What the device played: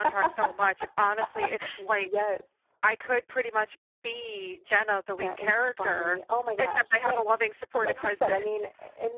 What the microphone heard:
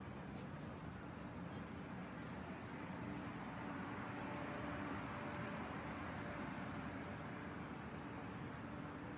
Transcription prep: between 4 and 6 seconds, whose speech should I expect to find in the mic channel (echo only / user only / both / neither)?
neither